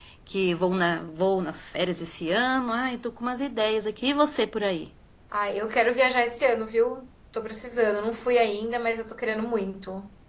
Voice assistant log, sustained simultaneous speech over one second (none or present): none